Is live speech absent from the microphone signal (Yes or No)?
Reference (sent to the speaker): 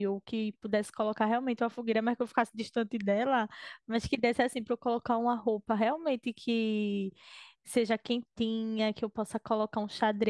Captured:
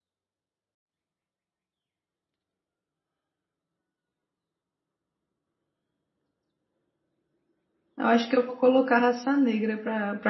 No